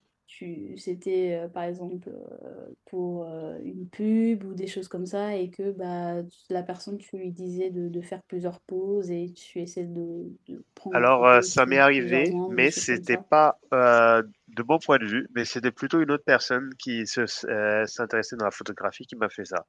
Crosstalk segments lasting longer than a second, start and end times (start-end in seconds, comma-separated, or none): 10.9-13.2